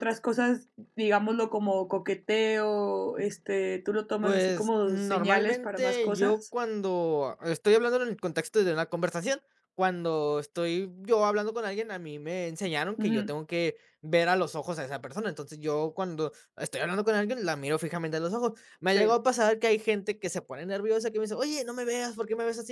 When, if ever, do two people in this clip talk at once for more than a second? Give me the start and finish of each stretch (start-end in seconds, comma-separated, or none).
4.2-6.3